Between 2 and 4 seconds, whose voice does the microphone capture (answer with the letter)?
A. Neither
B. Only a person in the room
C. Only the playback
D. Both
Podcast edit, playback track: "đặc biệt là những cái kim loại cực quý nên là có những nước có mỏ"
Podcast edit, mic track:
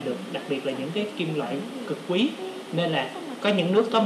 D